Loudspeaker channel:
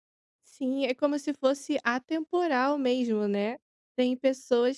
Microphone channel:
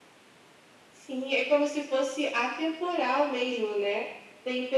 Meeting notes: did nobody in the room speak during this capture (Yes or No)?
Yes